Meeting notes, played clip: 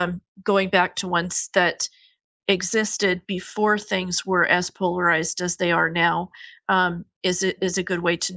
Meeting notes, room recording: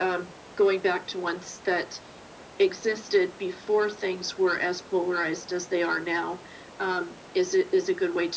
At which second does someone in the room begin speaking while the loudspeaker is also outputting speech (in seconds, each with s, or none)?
none